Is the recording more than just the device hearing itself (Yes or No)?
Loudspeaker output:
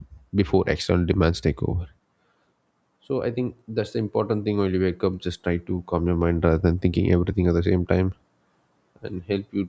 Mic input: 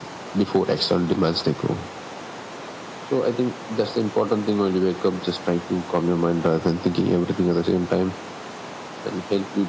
No